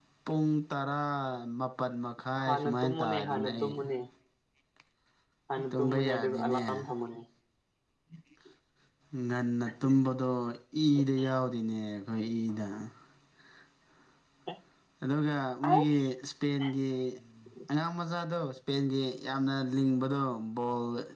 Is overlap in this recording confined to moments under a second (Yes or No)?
No